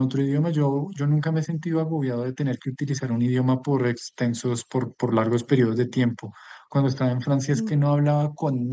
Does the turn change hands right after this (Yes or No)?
No